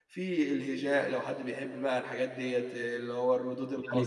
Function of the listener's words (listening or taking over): taking over